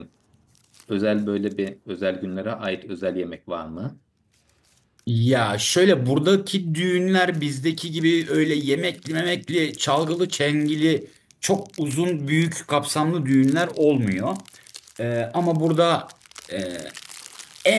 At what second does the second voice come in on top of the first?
none

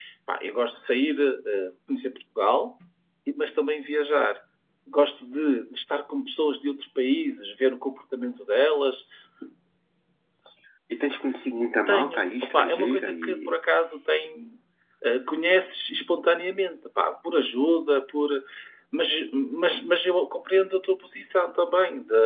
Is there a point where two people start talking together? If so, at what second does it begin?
12 s

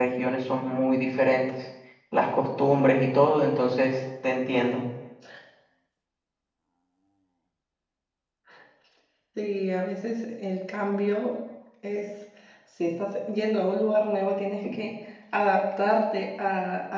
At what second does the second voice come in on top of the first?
none

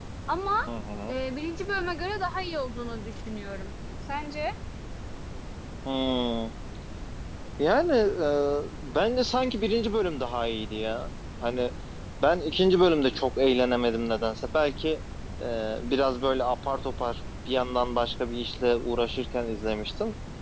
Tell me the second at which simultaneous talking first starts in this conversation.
none

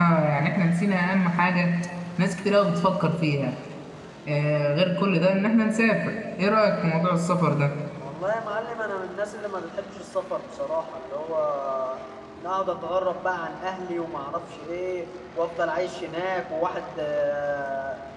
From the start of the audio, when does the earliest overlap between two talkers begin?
none

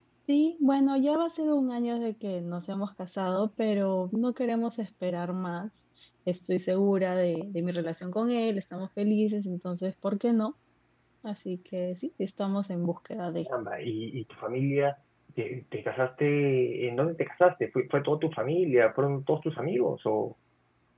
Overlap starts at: none

